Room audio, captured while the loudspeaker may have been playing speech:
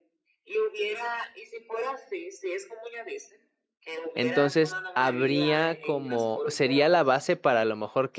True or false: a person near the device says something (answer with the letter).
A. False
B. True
B